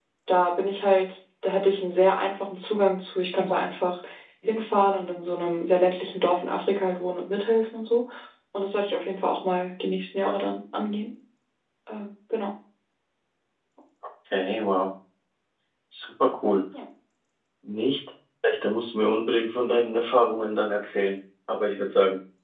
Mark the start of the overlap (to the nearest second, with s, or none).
none